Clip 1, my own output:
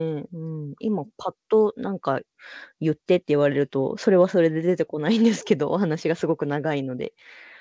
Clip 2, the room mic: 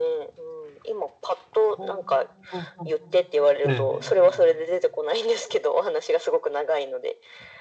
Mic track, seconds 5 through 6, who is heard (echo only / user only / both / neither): echo only